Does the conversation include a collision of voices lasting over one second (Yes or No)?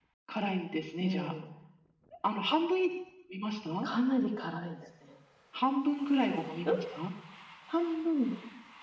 No